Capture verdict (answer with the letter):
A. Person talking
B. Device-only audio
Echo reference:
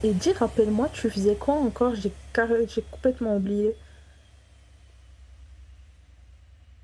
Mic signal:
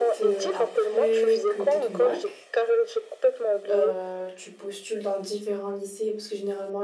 A